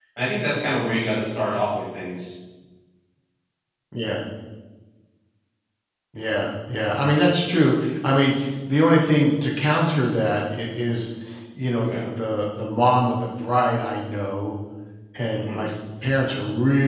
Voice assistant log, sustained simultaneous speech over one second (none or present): none